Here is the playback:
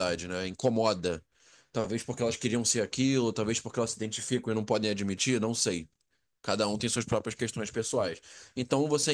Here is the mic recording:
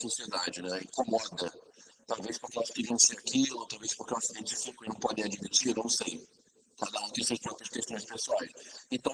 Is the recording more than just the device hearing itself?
No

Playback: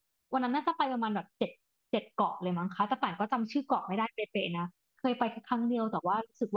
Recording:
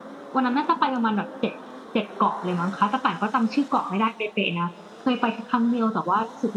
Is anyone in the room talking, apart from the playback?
No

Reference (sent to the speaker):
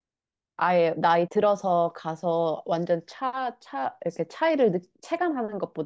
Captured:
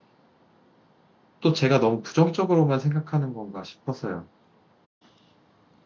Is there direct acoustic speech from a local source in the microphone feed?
Yes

